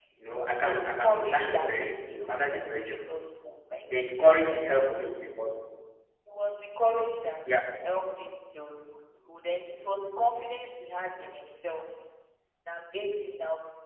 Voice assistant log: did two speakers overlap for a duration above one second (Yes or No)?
Yes